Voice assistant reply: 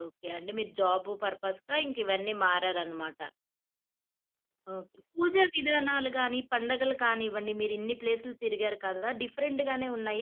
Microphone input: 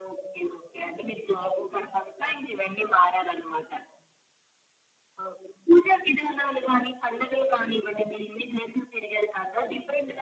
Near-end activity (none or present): none